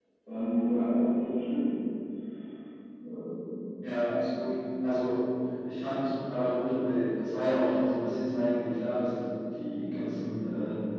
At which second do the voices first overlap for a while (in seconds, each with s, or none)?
none